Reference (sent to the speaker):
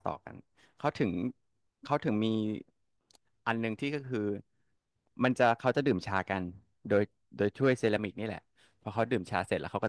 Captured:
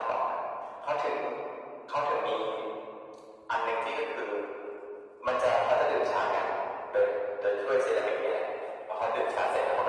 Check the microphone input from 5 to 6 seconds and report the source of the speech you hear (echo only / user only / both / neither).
echo only